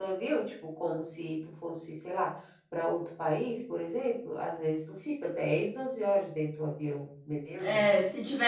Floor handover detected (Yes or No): Yes